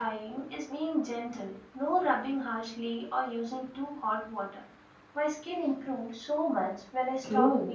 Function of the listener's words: taking over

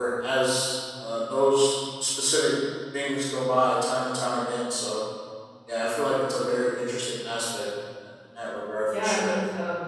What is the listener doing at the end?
taking over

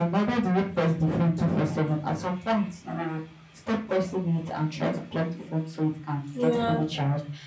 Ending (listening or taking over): listening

